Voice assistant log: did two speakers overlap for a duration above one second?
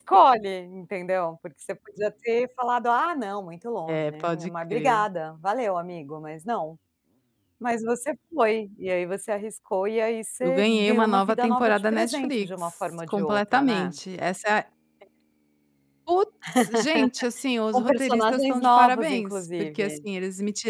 Yes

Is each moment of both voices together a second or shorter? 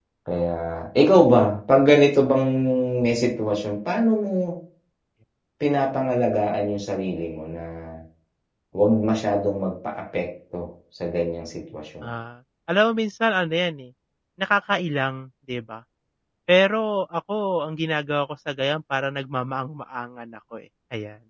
Yes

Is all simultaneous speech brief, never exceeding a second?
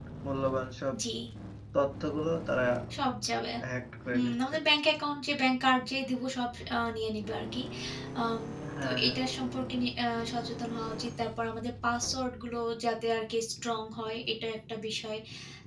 Yes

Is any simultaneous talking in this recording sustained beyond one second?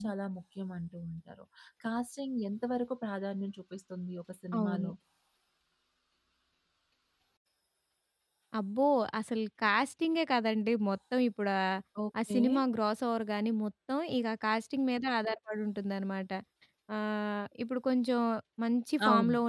No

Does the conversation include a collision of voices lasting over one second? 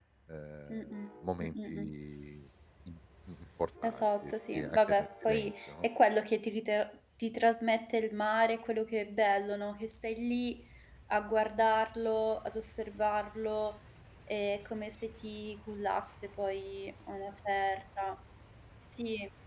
Yes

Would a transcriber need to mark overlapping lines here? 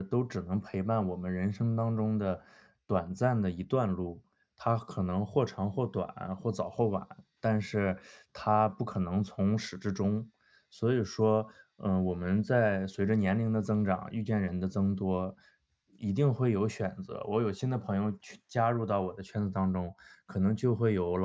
No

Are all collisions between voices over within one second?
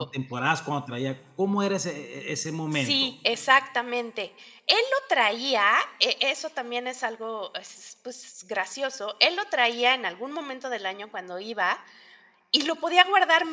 Yes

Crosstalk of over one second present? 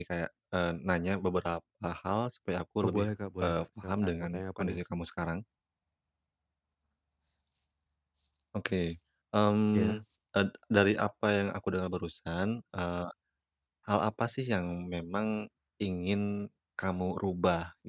Yes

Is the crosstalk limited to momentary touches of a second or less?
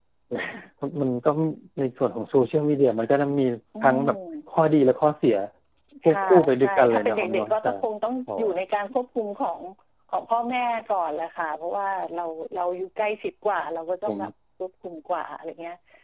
No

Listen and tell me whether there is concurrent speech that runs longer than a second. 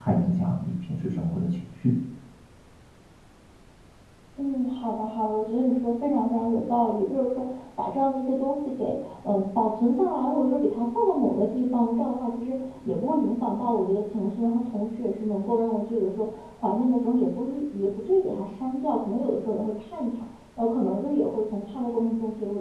No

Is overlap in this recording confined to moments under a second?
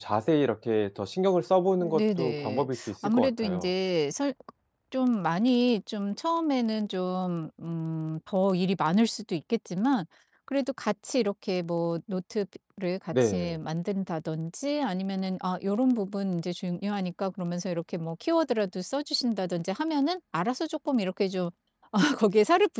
No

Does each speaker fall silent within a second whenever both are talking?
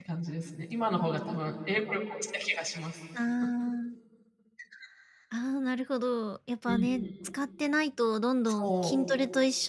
Yes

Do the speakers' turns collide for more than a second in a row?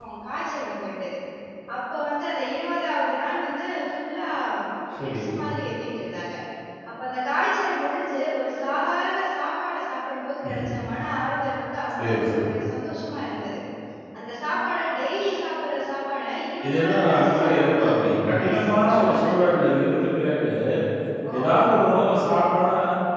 Yes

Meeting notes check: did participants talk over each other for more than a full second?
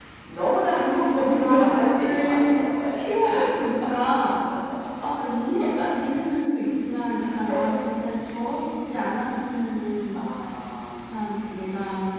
Yes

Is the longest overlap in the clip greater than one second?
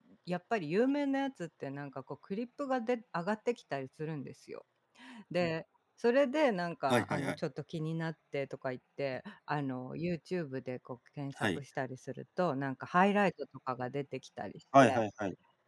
No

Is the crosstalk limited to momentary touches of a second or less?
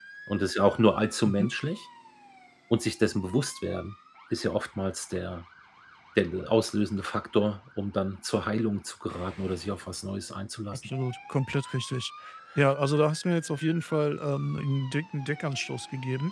Yes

